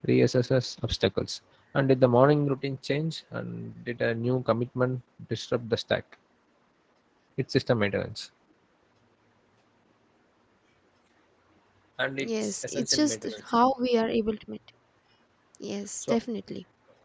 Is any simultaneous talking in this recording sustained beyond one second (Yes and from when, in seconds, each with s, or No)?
Yes, from 12.2 s